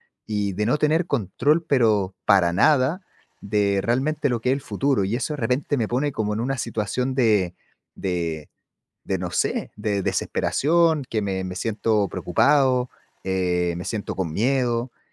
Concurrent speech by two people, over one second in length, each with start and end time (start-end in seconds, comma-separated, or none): none